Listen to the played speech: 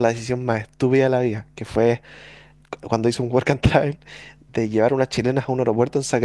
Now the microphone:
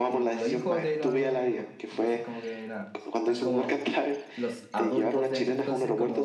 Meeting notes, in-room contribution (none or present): present